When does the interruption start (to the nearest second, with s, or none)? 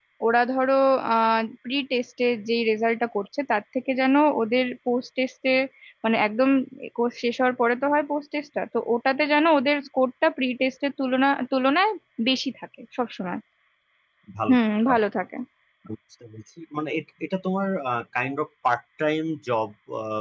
none